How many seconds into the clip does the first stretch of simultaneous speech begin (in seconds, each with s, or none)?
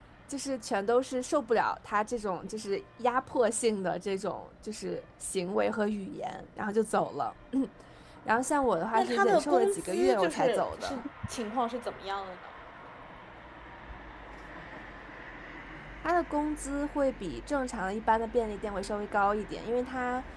8.9 s